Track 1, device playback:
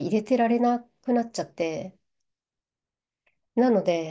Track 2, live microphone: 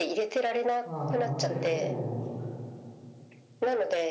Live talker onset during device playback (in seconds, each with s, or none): 0.8 s